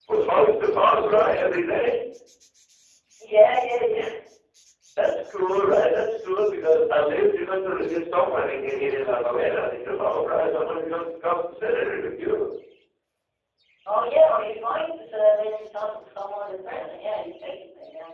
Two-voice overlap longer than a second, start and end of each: none

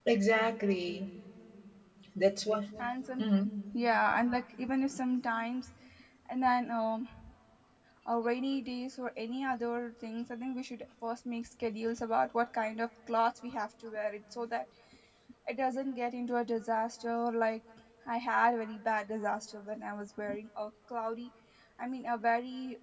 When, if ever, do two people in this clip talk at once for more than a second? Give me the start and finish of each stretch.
none

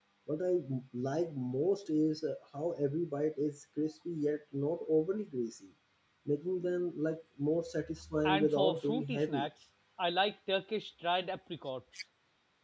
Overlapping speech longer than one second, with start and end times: 8.2-9.5

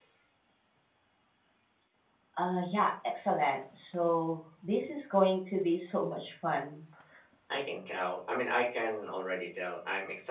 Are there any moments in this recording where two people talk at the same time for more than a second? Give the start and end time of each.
none

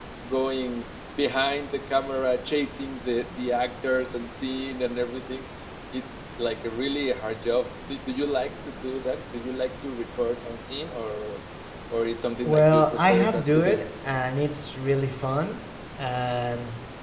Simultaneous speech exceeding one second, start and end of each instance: 12.4-13.8

